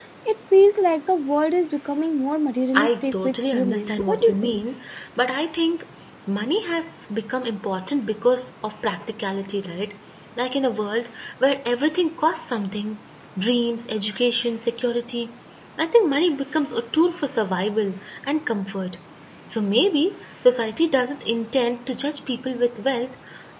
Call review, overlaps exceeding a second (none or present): present